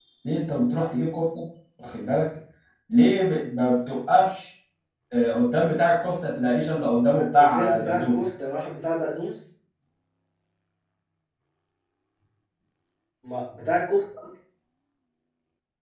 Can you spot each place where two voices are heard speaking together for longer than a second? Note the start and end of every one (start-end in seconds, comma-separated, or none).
6.9-8.3